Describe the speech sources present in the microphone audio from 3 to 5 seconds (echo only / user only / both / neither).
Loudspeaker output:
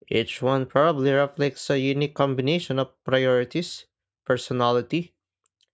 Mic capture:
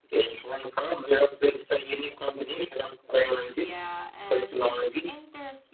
both